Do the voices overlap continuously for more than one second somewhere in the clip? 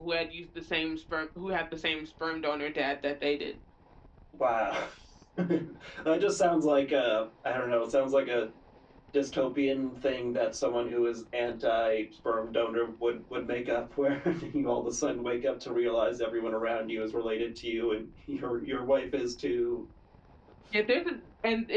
No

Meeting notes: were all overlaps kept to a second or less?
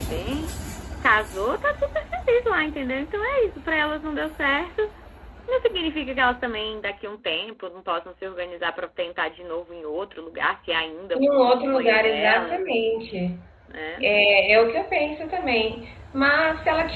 No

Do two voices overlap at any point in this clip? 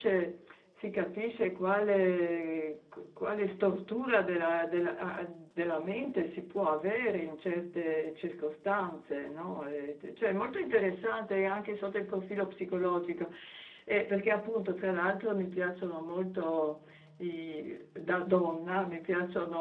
No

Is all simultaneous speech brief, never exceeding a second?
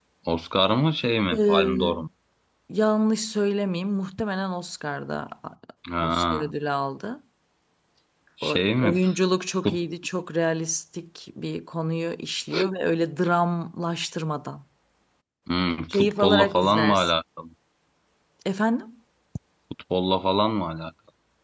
No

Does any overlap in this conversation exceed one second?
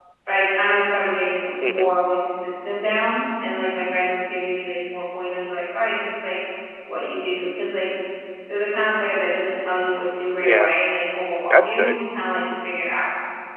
No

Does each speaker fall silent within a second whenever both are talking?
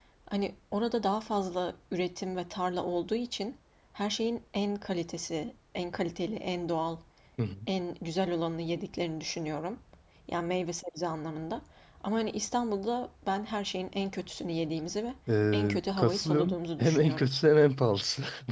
No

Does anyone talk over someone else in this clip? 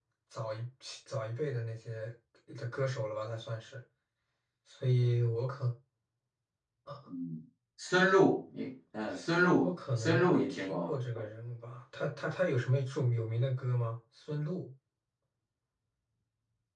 Yes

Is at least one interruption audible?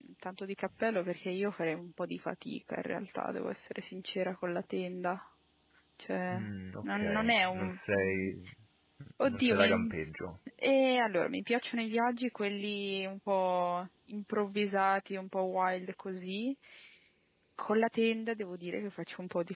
Yes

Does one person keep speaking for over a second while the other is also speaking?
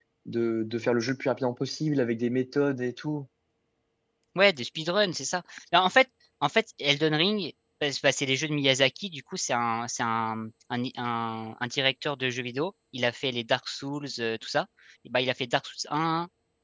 No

